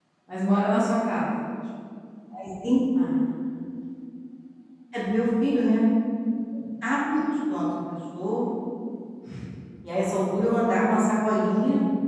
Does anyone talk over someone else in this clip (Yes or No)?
No